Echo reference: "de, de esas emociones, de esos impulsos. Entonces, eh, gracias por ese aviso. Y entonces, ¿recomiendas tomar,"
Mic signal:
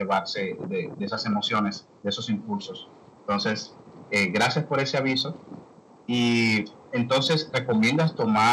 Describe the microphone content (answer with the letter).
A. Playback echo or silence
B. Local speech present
A